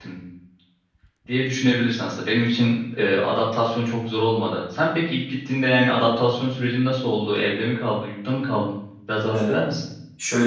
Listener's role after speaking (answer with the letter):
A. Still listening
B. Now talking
B